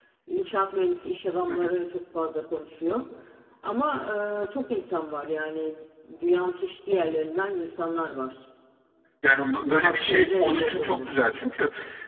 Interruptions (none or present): present